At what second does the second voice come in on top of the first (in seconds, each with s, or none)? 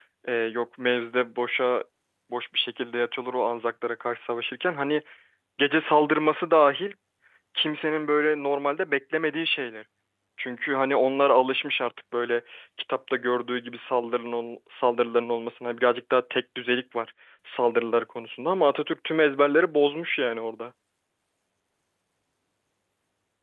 none